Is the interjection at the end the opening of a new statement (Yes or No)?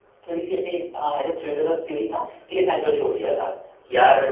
No